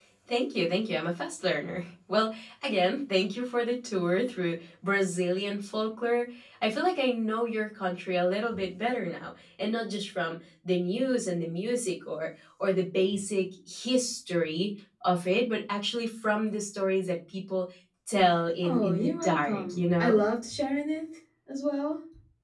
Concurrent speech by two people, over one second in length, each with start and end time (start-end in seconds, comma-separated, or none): 18.6-20.2